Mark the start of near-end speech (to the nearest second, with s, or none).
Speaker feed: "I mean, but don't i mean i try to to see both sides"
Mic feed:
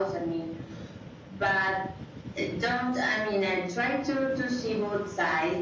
none